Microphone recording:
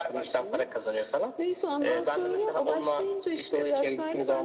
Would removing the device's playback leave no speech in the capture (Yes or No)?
Yes